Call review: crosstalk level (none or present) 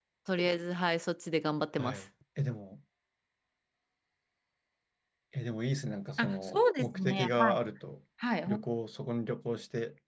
present